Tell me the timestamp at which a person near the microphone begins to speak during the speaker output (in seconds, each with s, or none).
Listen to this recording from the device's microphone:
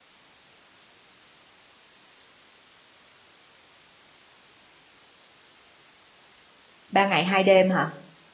6.9 s